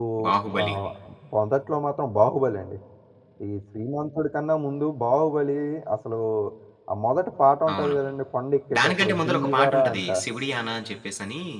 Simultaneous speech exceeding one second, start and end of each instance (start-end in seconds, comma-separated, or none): 8.8-10.0